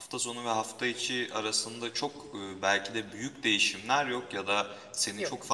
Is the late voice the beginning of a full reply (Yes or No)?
No